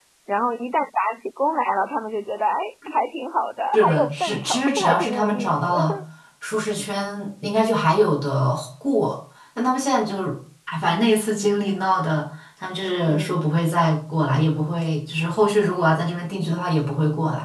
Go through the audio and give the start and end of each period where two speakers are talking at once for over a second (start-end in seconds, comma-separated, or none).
3.7-5.7